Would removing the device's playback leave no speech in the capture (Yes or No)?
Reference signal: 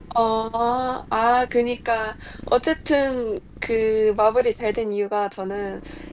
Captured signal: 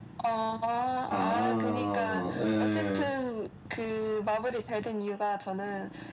No